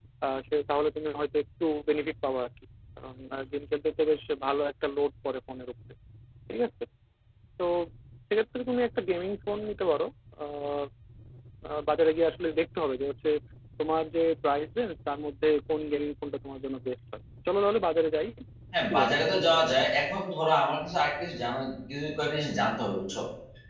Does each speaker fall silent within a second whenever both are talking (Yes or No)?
Yes